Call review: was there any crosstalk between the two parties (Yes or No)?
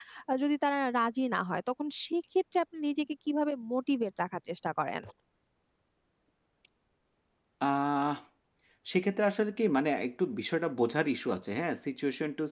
No